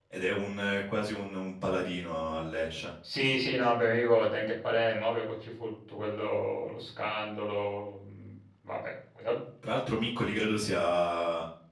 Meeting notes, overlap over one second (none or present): none